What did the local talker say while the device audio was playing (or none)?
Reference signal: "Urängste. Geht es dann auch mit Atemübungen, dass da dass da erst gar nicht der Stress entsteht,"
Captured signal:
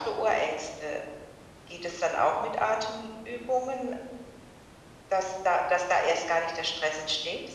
none